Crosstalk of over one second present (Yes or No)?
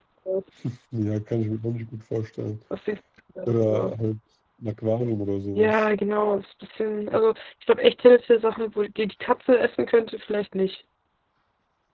No